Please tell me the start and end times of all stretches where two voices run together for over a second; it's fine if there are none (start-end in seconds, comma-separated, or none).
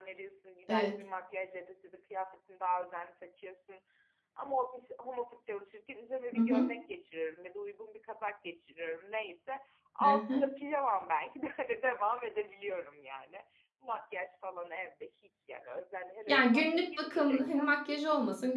16.3-17.7